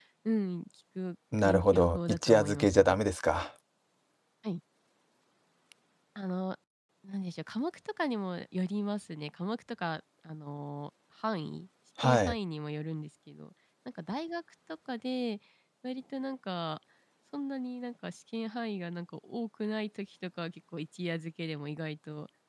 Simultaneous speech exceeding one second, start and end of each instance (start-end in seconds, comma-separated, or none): 1.4-3.0